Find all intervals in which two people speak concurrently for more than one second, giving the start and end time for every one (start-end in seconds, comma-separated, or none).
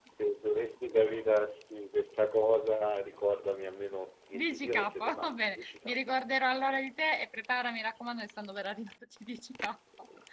4.4-6.0